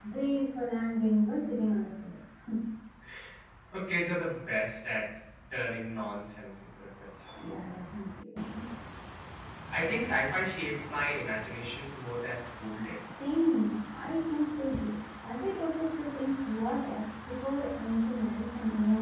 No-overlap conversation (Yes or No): Yes